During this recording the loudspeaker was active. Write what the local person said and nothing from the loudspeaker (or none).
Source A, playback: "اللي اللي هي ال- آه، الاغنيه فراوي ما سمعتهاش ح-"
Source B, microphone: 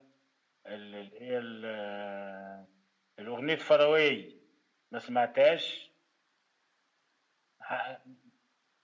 none